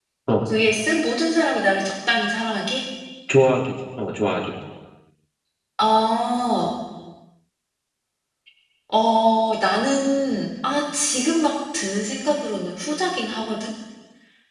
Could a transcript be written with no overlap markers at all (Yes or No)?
Yes